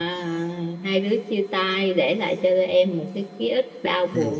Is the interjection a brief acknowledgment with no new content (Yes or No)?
No